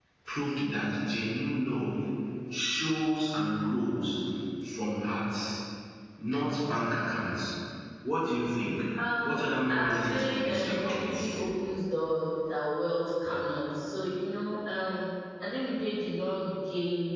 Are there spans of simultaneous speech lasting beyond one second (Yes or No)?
Yes